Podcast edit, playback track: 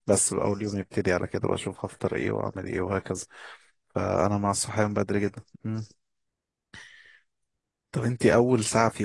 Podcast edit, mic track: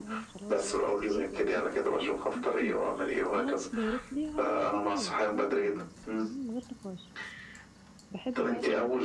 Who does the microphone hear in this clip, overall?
both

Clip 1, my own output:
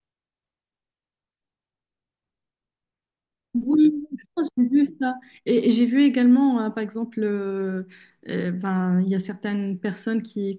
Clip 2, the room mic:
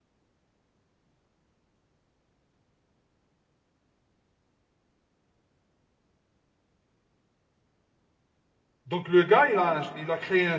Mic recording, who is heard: user only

